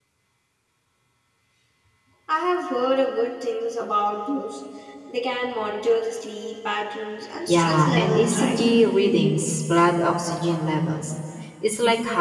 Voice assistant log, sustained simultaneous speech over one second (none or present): present